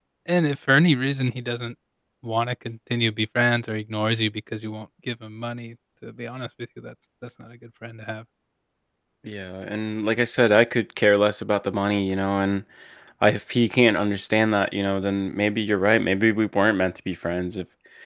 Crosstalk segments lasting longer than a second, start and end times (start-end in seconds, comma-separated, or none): none